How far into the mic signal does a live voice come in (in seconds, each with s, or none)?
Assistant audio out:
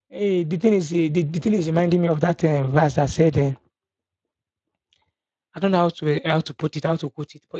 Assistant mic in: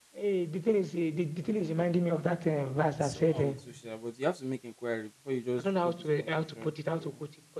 2.9 s